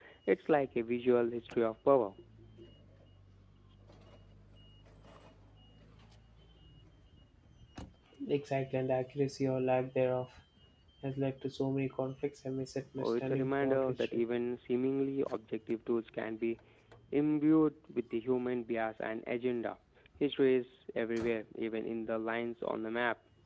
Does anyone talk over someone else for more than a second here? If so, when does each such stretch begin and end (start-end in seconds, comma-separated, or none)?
13.0-14.2